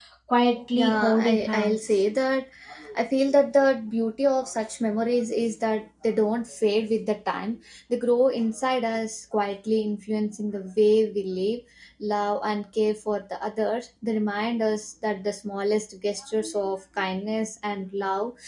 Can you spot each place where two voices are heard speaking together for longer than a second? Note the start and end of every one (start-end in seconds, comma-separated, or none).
0.7-2.0